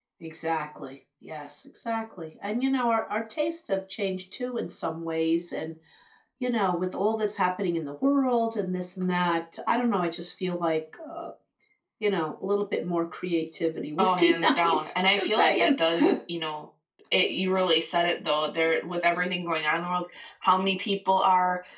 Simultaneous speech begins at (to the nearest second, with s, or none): 14 s